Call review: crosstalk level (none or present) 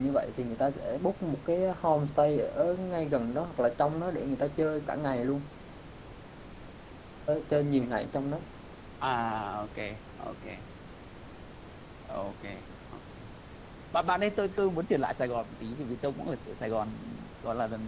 none